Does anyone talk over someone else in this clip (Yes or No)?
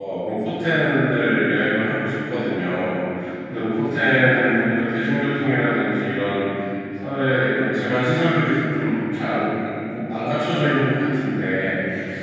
No